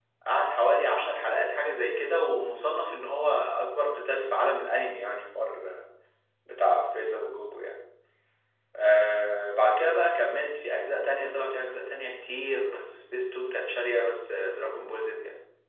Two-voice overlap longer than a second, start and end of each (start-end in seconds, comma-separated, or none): none